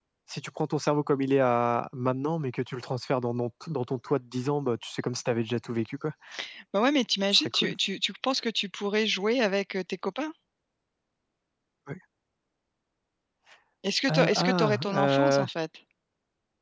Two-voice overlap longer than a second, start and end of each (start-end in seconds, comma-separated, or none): 14.1-15.5